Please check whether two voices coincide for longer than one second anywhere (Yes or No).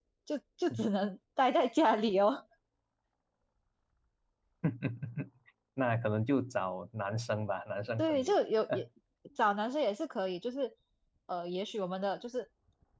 No